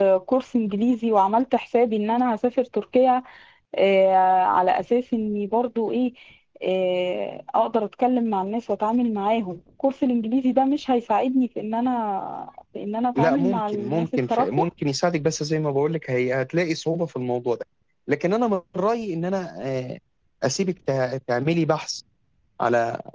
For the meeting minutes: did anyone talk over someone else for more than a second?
Yes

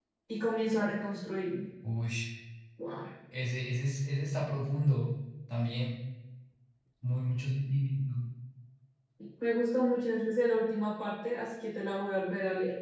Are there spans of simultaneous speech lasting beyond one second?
No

